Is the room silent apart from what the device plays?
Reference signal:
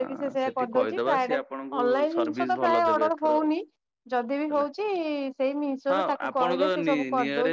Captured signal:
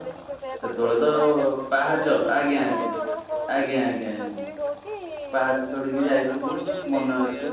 No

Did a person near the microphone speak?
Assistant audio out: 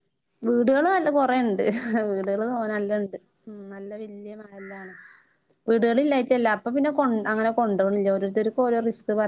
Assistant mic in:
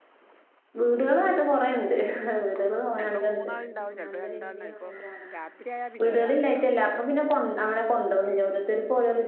Yes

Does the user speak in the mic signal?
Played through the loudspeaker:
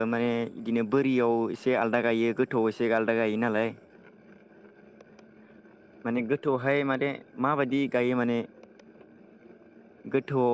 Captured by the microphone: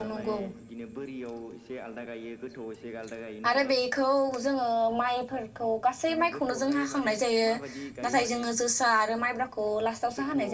Yes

